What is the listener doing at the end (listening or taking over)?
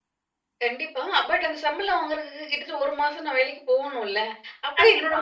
listening